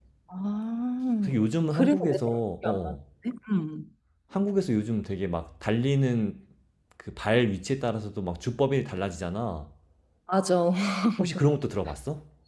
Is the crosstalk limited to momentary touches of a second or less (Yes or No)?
No